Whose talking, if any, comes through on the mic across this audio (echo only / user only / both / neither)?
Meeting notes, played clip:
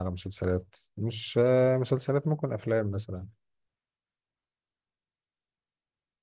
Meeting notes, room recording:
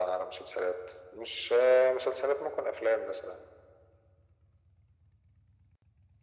echo only